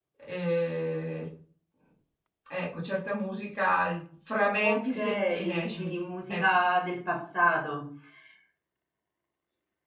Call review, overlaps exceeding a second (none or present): present